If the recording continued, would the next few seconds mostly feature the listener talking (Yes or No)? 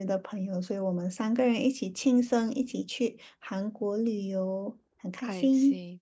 Yes